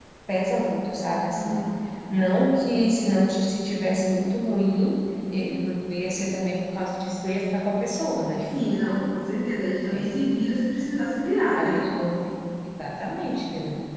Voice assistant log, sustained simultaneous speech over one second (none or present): none